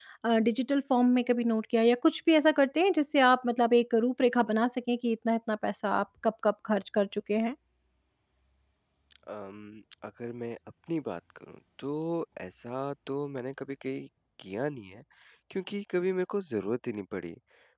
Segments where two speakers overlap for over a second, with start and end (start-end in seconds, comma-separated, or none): none